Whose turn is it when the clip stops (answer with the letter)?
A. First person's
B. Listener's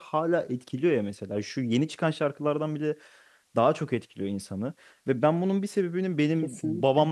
A